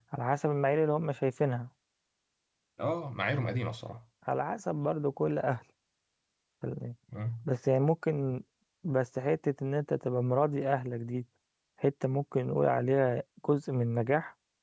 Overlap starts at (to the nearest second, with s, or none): none